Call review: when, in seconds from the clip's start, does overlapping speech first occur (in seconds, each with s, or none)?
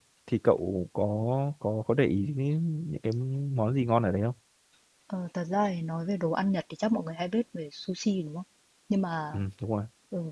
none